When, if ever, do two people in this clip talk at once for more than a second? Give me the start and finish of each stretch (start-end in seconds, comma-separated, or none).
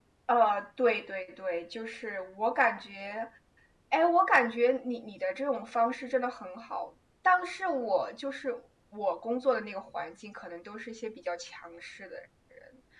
none